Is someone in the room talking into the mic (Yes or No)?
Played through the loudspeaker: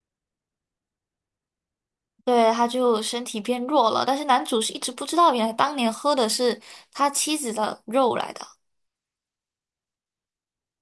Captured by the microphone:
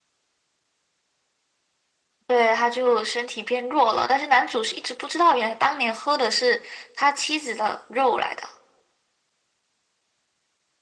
No